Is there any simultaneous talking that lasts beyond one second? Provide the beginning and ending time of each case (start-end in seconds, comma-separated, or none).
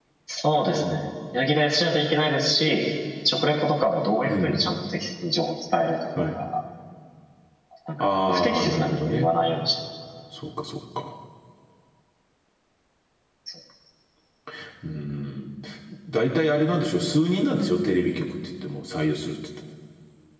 8.0-9.3